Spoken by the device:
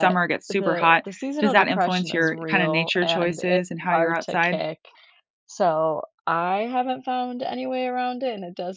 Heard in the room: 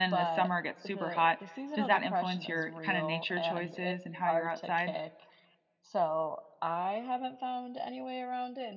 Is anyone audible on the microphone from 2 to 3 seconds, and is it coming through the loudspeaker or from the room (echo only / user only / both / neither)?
echo only